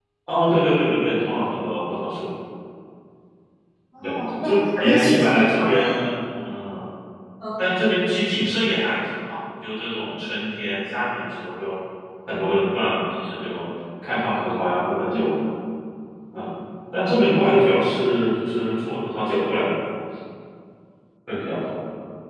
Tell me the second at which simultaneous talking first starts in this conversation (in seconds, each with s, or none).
4.0 s